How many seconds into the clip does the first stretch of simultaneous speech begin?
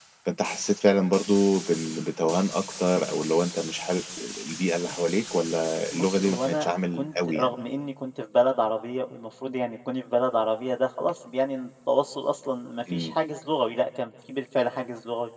5.9 s

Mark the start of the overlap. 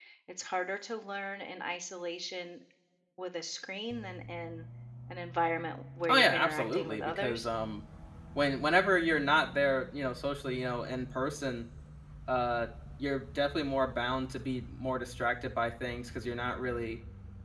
6.0 s

